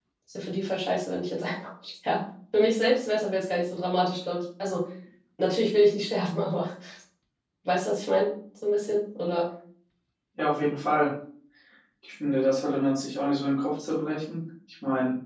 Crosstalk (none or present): none